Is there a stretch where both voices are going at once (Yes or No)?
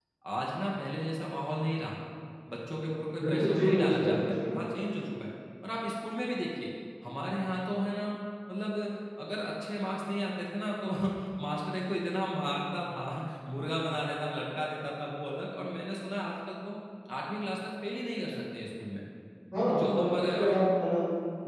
Yes